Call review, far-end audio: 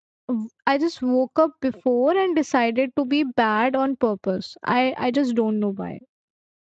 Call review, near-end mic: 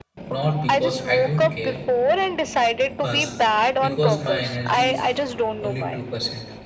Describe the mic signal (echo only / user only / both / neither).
both